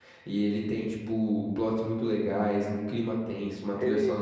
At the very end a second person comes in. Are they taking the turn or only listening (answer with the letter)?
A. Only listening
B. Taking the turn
B